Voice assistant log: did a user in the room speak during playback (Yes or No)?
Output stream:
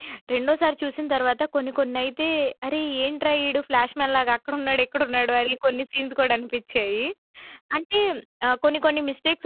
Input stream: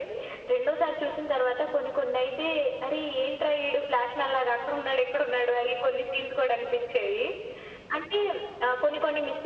No